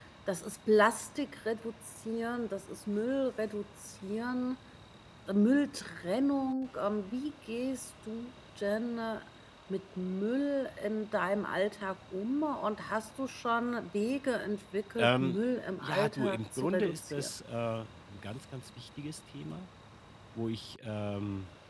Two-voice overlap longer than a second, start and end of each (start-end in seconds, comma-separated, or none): 15.8-17.3